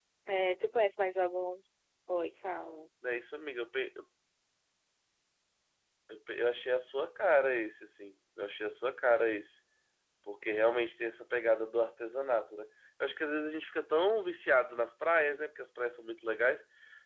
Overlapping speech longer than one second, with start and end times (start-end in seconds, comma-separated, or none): none